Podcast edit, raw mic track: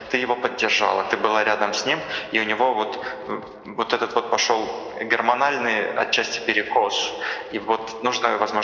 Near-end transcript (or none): none